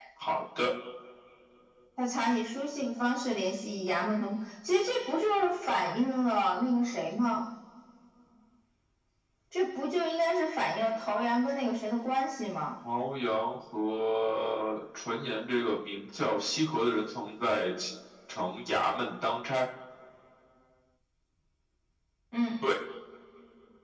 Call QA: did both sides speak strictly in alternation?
Yes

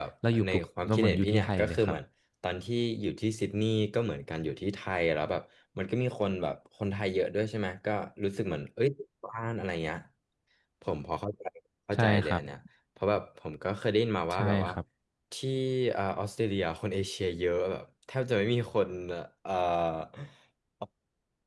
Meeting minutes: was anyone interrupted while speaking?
Yes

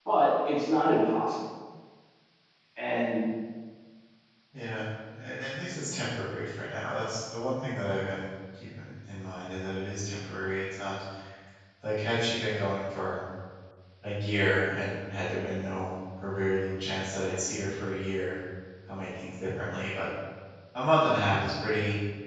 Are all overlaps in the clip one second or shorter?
Yes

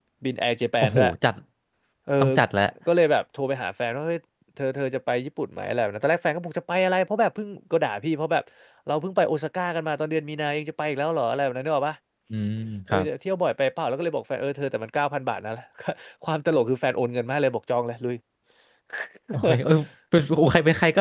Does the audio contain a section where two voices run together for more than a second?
No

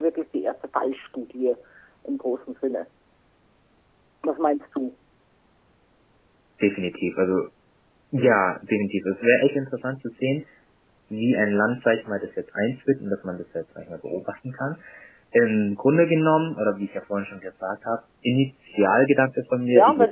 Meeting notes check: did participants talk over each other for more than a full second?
No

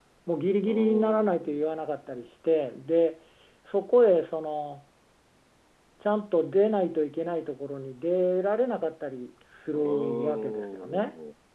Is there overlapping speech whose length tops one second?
Yes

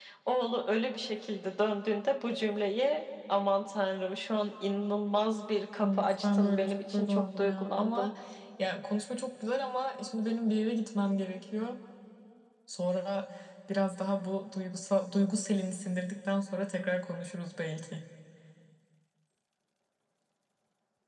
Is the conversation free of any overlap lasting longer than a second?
No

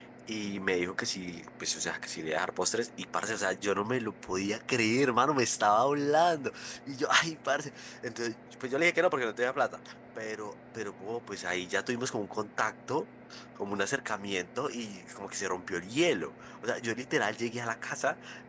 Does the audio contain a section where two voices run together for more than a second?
No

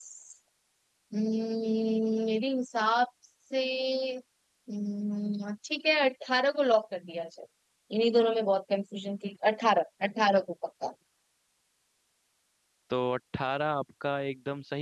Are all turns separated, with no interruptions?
Yes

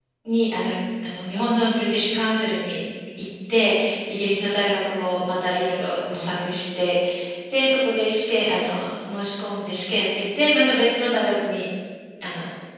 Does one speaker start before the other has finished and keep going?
No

